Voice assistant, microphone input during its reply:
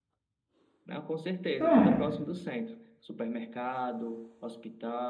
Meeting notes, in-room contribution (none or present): present